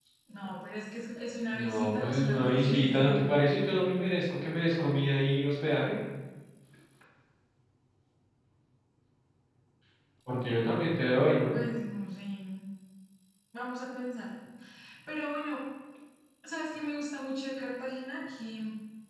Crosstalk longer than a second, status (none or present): present